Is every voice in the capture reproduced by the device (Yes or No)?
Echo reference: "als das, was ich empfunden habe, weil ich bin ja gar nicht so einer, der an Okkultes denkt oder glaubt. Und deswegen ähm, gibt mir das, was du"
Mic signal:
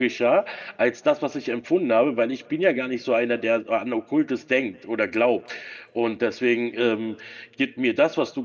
Yes